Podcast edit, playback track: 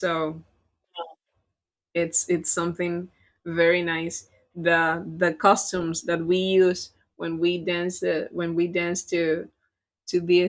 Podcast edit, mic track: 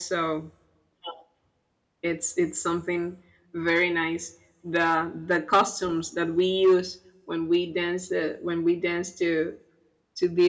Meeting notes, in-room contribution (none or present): none